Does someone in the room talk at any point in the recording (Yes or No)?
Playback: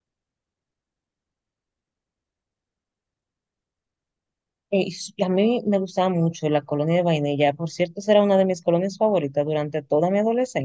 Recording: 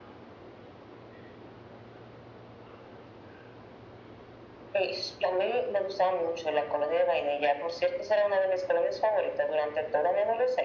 No